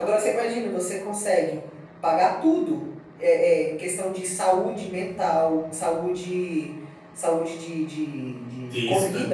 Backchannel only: Yes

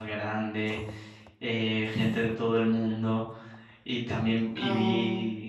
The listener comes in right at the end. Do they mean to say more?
No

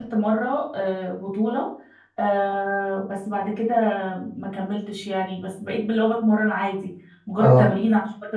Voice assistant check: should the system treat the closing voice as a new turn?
No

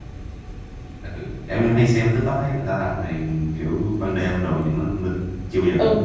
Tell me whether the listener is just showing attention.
No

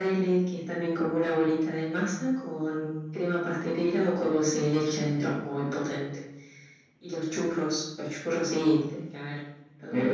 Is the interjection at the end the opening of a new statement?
Yes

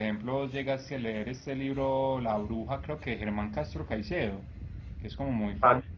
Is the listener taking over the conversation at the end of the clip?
No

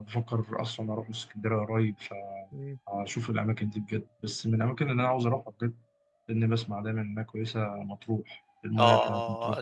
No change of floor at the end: No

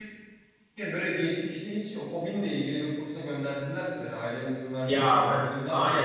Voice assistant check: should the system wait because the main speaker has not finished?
No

